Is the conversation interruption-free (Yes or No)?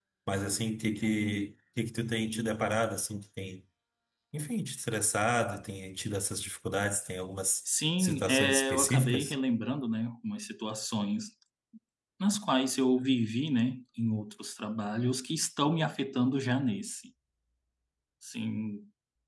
No